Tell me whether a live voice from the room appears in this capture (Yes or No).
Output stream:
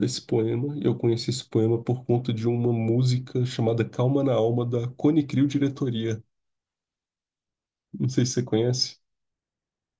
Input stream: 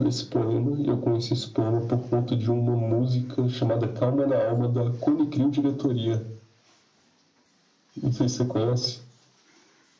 No